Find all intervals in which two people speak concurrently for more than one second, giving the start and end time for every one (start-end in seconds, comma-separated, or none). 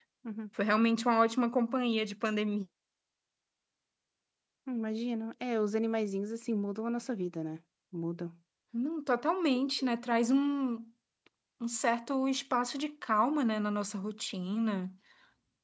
none